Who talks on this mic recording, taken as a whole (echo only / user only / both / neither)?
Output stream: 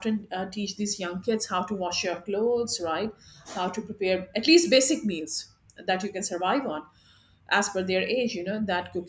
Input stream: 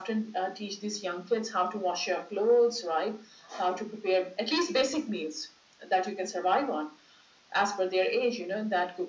echo only